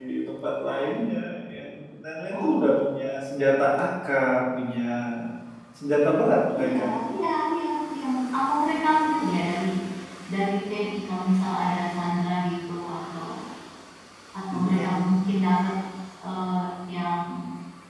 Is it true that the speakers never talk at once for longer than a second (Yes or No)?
Yes